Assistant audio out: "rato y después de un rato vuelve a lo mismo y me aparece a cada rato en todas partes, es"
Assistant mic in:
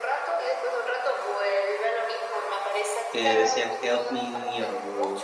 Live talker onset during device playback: 3.1 s

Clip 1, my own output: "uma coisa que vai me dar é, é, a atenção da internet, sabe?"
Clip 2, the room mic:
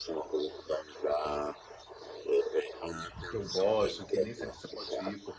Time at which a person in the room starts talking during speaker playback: 3.3 s

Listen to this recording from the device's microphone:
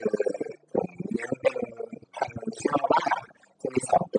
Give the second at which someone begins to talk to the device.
none

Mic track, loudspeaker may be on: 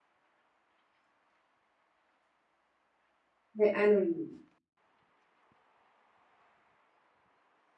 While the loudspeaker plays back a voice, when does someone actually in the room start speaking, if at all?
3.5 s

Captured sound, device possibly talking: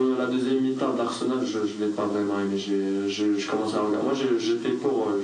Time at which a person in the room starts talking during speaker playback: none

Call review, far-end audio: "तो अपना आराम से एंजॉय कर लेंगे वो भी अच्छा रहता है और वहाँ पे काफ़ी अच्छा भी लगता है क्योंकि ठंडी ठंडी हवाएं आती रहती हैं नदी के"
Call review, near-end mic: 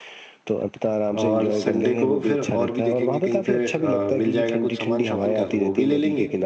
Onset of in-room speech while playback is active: 1.2 s

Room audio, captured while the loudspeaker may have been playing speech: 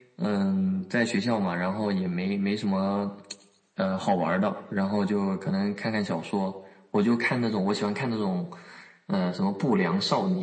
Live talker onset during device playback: none

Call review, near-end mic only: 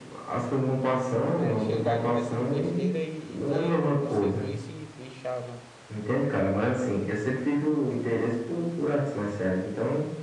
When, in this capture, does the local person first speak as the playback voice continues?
1.3 s

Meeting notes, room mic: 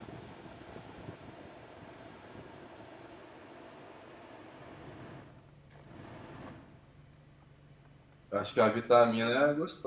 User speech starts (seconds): 8.3 s

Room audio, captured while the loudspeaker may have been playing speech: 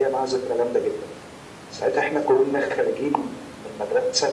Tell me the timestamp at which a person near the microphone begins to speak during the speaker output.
none

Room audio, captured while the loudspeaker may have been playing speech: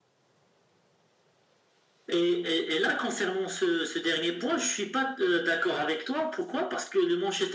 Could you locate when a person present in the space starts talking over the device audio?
none

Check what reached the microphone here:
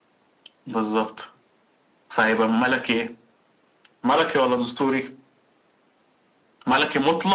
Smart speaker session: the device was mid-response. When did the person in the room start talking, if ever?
none

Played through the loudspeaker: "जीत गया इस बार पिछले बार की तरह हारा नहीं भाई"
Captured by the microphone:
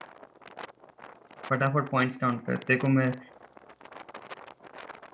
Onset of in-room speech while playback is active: 1.5 s

